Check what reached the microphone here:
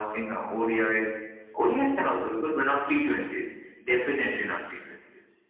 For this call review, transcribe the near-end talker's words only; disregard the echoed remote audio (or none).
none